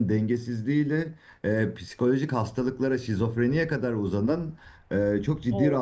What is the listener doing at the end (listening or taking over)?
listening